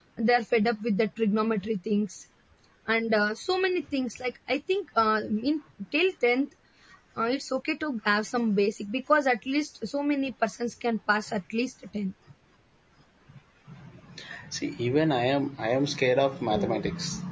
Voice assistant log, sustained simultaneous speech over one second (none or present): none